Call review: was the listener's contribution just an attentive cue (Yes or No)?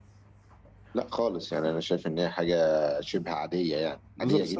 No